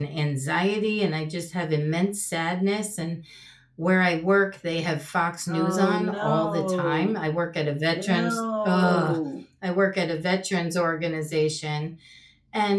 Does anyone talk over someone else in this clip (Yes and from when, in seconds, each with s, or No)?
Yes, from 5.5 s